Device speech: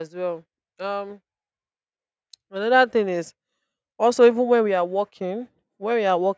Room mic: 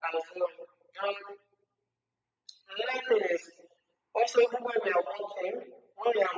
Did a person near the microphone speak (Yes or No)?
No